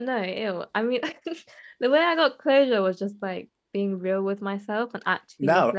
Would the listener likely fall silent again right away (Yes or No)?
No